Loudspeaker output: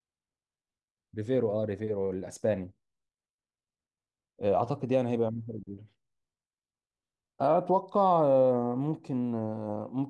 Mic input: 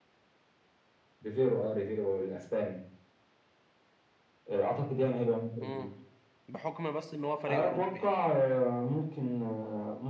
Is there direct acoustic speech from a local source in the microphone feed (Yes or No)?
Yes